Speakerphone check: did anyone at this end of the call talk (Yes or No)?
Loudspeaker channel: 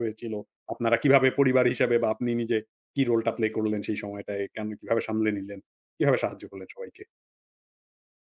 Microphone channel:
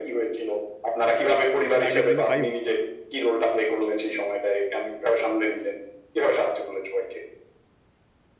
Yes